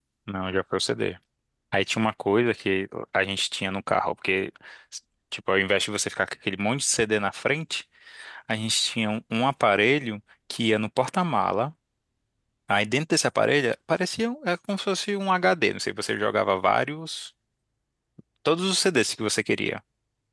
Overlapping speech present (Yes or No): No